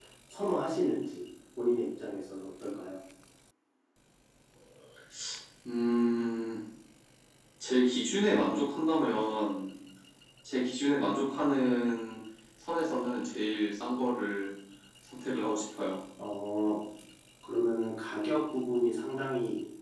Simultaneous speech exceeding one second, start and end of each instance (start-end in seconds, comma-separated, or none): none